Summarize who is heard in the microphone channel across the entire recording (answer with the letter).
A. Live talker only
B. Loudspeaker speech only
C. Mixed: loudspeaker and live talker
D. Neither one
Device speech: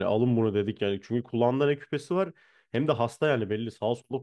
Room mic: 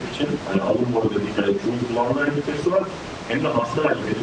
B